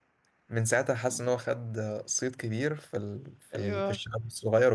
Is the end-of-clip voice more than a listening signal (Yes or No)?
No